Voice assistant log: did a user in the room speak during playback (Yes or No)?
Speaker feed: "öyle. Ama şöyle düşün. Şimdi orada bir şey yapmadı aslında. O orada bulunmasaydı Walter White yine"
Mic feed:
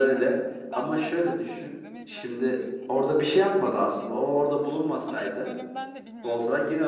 Yes